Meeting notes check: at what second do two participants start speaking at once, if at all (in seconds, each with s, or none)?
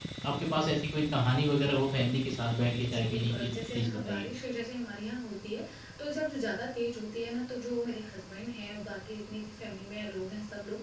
2.8 s